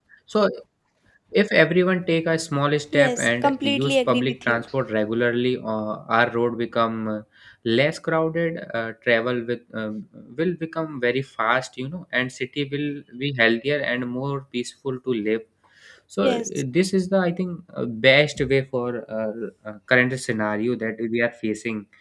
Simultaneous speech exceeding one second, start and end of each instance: 2.9-4.6

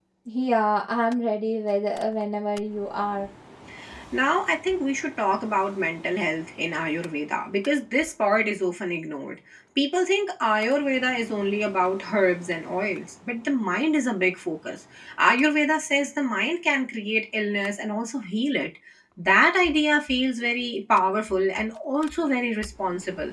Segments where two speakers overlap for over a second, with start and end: none

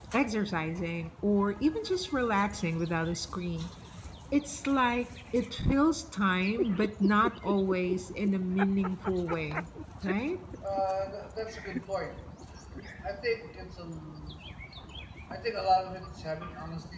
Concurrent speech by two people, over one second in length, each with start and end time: none

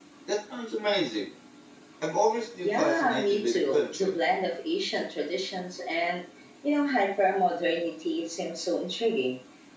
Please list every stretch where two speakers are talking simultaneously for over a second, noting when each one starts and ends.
2.6-4.1

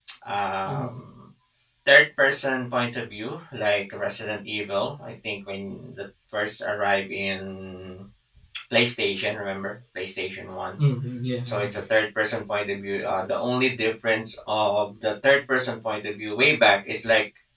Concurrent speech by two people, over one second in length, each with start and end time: none

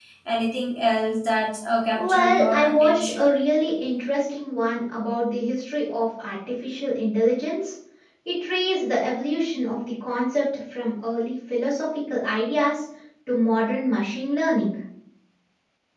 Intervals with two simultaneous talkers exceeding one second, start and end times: 2.0-3.3

